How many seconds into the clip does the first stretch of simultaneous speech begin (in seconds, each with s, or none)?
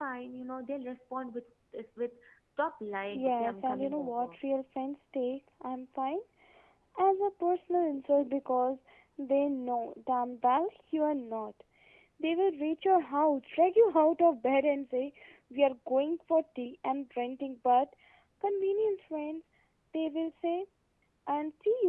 3.0 s